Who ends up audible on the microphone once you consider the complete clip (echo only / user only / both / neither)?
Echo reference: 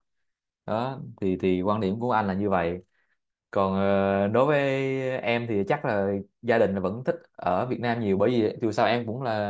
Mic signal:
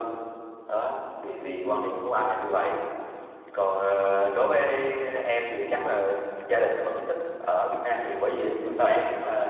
echo only